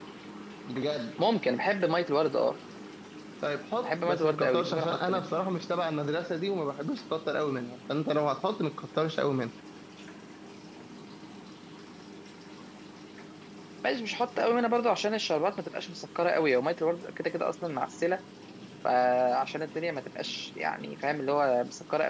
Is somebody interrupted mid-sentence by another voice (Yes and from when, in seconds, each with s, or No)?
Yes, from 3.8 s